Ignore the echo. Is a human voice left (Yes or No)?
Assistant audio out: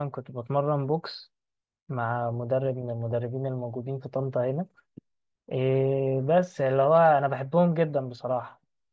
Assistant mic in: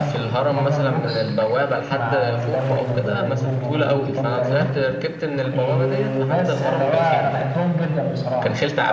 Yes